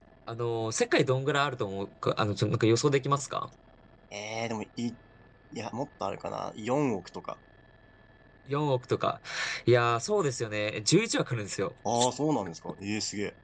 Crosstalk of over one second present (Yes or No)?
No